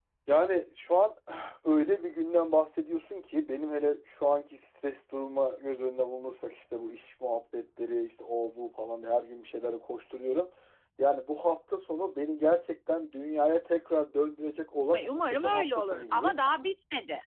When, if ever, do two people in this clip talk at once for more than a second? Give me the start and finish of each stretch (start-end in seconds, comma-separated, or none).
15.1-16.4